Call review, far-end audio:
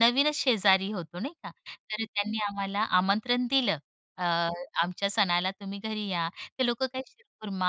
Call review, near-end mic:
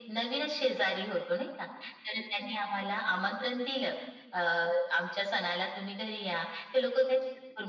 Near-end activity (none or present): none